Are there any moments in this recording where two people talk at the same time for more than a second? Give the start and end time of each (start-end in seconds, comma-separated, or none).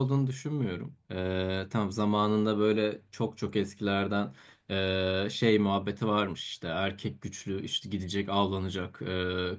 none